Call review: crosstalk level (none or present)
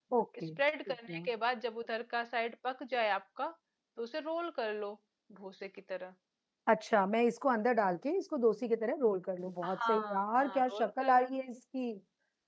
present